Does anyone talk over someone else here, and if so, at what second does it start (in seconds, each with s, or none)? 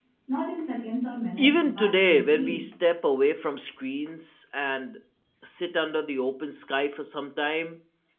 1.4 s